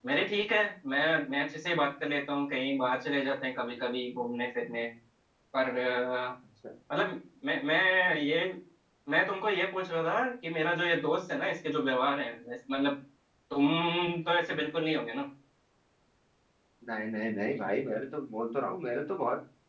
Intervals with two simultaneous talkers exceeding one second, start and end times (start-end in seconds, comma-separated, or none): none